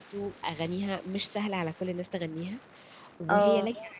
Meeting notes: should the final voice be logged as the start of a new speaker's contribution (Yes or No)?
No